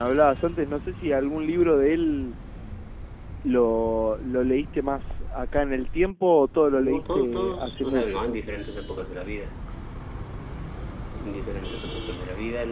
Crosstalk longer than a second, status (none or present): present